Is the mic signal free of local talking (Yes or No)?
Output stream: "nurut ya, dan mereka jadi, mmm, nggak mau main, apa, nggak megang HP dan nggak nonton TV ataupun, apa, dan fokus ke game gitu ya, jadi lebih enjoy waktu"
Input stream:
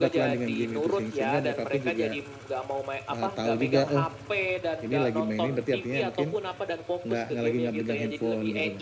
No